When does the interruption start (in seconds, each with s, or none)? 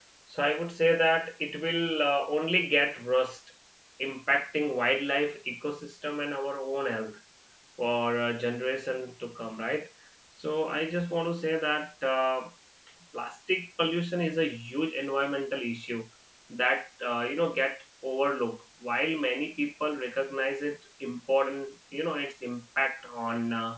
none